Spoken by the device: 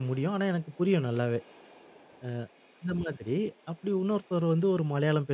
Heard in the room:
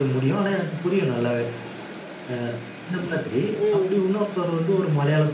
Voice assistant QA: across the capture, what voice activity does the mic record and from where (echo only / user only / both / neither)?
both